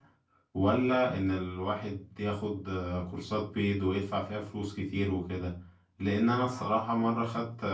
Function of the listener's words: listening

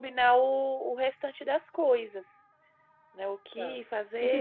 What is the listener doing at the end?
taking over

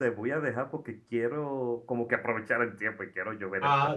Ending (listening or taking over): taking over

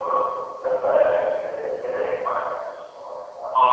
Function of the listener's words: taking over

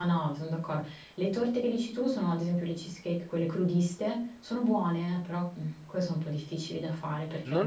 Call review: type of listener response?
taking over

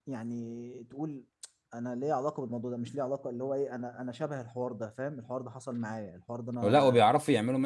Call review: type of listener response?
taking over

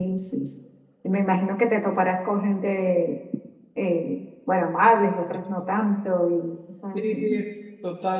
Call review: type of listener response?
taking over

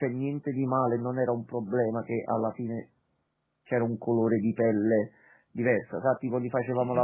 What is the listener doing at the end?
listening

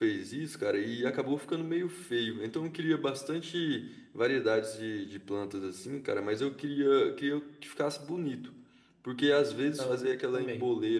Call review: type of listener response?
listening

